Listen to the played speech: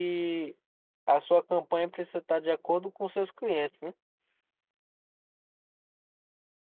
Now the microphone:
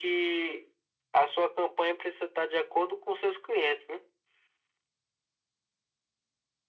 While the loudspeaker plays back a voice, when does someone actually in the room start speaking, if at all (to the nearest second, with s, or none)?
none